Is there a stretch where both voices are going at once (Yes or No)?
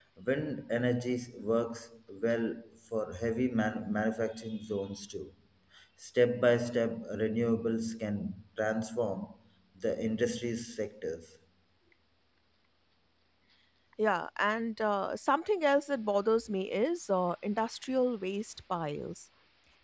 No